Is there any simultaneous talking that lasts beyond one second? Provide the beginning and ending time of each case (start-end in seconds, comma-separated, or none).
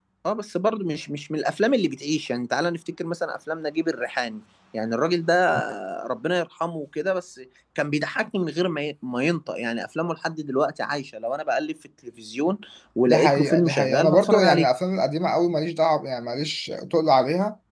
13.1-14.7